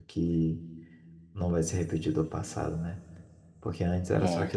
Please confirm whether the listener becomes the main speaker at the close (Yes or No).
No